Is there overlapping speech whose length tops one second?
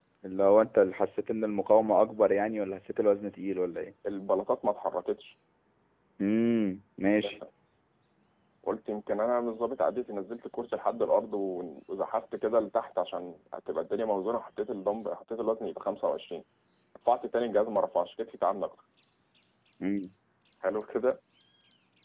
No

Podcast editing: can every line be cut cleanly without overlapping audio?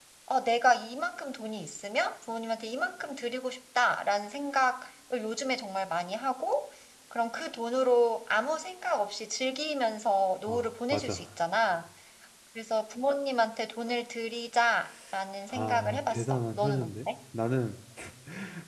No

